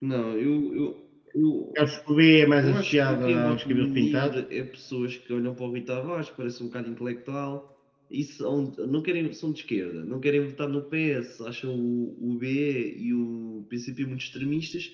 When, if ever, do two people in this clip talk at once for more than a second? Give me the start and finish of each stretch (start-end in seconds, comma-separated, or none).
2.6-4.3